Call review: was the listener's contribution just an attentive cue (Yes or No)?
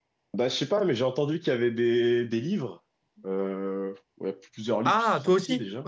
No